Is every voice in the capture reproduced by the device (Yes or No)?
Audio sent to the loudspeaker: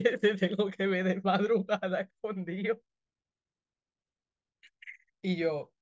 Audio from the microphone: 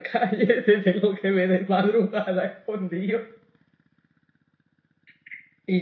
Yes